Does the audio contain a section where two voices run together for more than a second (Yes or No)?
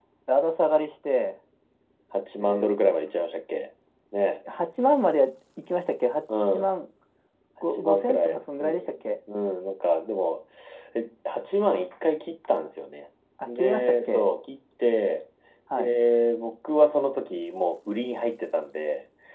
Yes